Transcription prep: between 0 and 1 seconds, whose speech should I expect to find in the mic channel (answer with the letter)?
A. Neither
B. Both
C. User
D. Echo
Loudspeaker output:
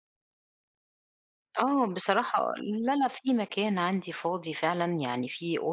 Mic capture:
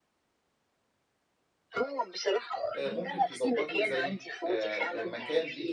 A